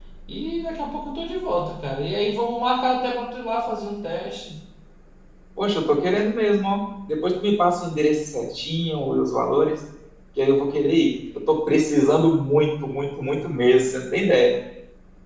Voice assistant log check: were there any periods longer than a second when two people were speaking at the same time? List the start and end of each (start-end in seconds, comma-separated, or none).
none